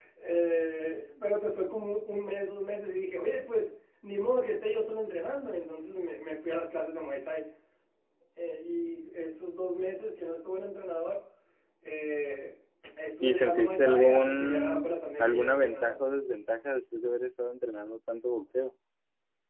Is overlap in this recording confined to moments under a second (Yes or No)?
No